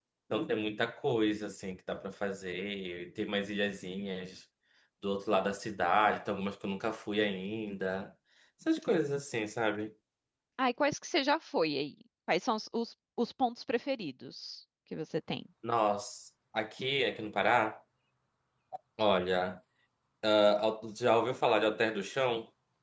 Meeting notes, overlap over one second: none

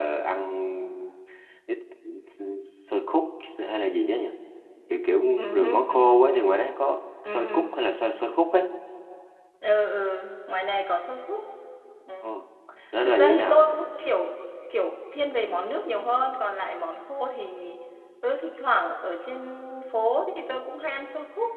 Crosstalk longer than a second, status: present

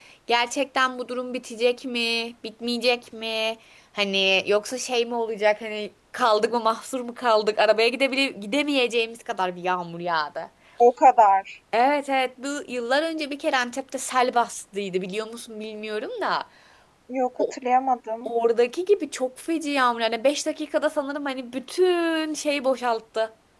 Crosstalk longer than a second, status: none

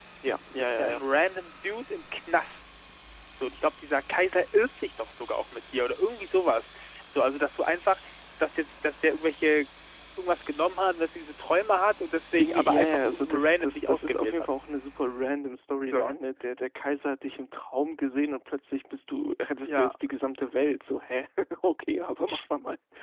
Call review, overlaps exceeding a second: present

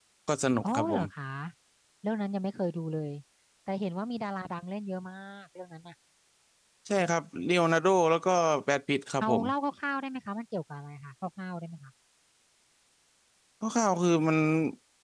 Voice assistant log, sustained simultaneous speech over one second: none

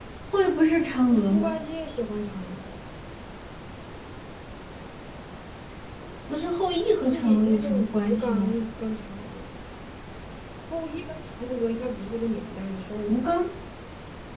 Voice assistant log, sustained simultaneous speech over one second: present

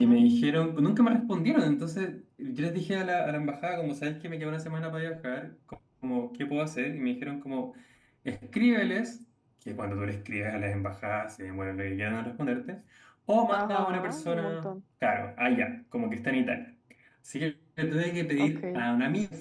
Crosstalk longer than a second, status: present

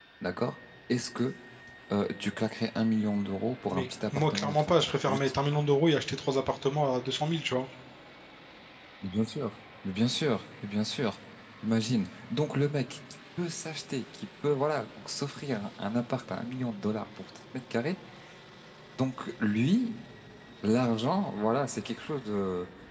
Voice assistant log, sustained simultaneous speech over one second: present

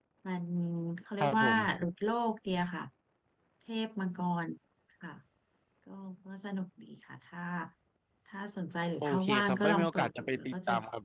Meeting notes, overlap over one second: present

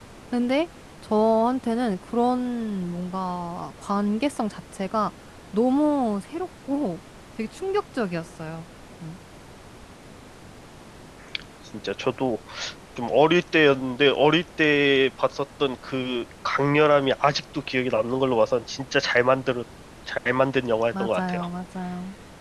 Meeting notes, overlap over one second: none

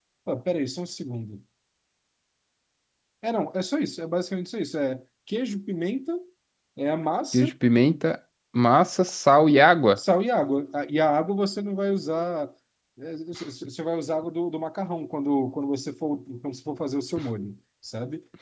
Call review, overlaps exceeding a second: none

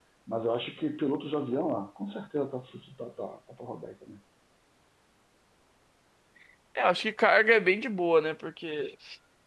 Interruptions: none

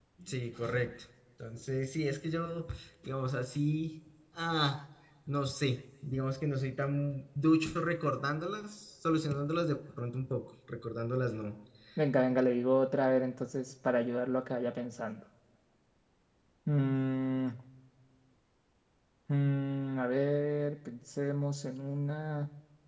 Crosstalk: none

